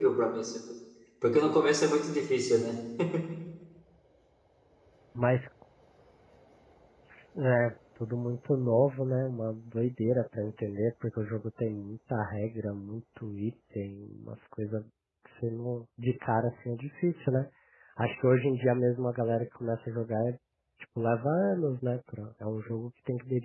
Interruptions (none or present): none